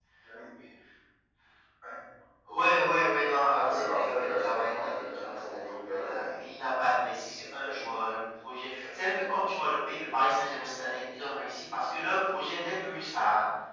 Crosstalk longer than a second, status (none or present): present